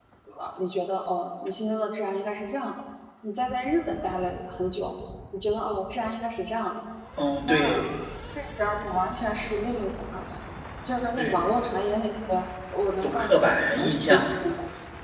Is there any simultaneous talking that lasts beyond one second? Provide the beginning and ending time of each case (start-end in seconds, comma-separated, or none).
13.0-14.2